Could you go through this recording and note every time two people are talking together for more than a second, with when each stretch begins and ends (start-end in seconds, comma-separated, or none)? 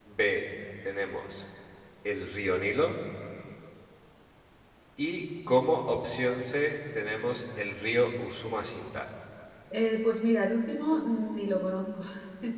none